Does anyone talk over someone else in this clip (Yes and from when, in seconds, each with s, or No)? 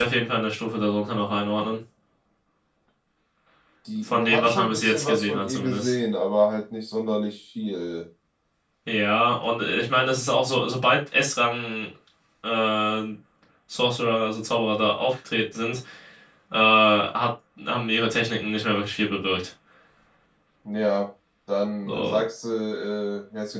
Yes, from 4.1 s